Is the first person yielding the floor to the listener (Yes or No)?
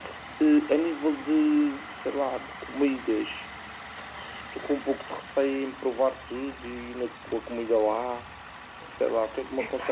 No